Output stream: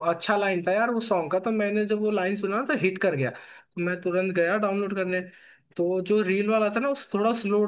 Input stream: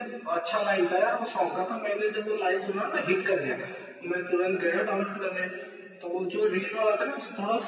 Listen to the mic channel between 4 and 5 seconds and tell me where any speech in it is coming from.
both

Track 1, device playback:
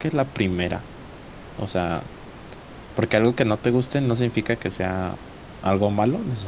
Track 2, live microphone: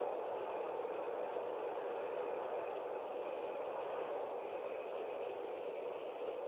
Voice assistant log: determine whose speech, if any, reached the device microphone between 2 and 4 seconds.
neither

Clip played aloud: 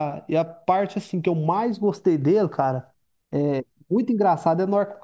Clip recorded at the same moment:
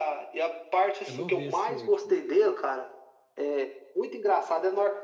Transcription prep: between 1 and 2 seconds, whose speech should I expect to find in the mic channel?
both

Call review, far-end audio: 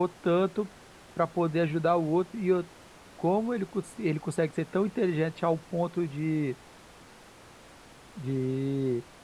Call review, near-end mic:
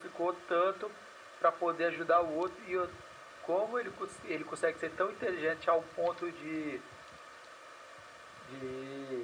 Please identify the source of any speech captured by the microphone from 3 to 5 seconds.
echo only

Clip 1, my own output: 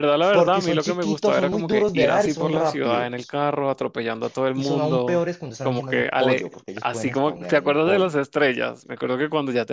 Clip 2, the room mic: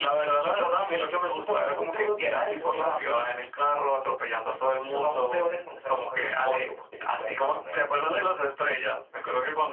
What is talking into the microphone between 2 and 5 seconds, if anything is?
echo only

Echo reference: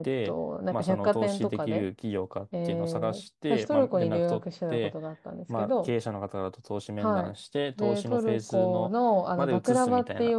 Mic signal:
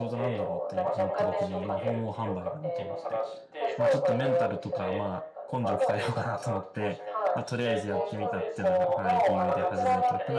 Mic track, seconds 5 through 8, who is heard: both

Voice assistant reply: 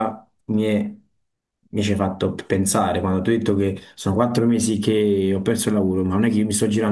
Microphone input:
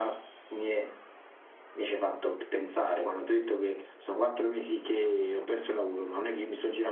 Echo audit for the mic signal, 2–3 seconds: echo only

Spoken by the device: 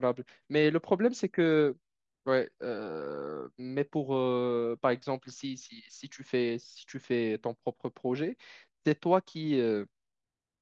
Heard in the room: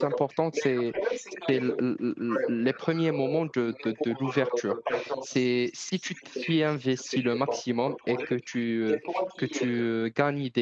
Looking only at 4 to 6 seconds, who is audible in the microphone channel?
both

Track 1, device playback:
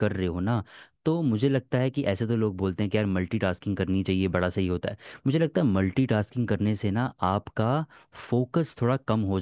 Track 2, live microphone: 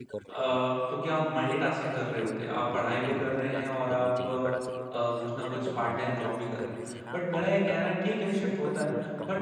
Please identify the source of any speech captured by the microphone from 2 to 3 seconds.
both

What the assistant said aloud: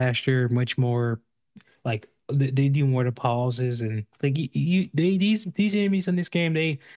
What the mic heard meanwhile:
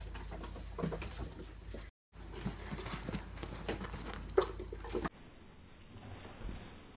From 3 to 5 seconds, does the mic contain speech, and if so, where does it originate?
neither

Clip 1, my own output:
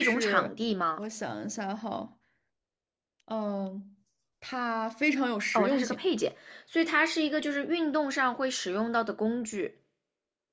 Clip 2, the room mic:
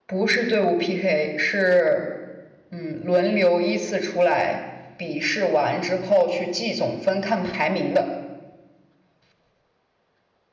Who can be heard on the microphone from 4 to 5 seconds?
user only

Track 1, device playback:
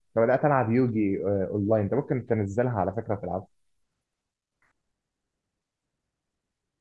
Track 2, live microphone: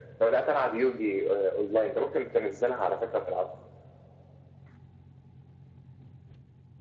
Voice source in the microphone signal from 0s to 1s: echo only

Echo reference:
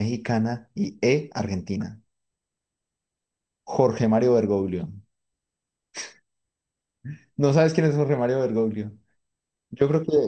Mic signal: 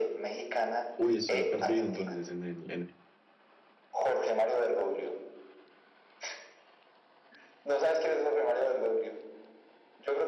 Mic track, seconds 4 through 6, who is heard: echo only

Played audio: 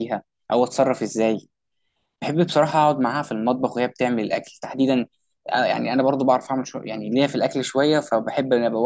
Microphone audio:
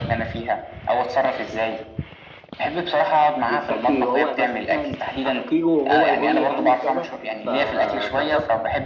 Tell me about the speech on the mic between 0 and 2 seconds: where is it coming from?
echo only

